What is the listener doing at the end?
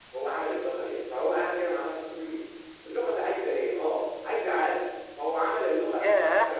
listening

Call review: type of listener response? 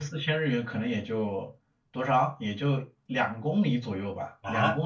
taking over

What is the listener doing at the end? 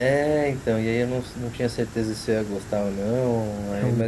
listening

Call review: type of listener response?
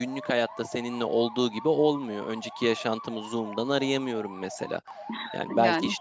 listening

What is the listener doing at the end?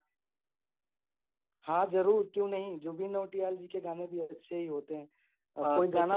taking over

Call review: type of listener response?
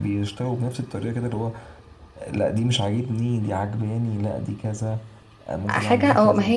taking over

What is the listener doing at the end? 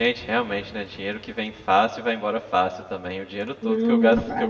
listening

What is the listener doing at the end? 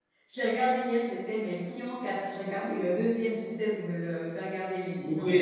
taking over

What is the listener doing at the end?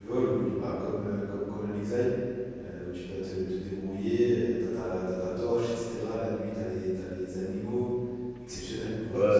taking over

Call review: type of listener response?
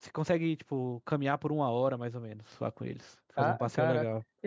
taking over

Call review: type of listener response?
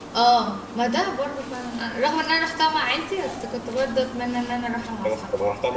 taking over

